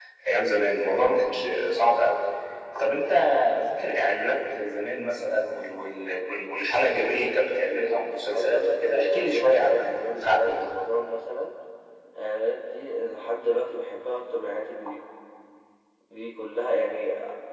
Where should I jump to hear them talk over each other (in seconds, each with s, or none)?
8.3 s